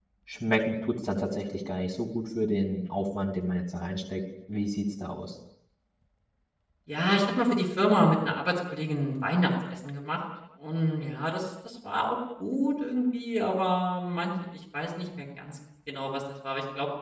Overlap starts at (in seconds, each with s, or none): none